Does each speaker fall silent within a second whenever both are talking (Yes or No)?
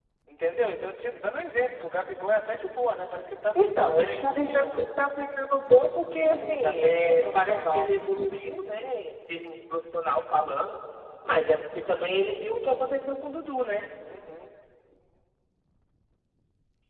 No